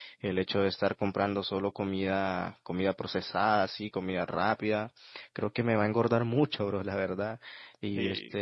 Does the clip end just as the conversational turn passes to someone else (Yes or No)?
No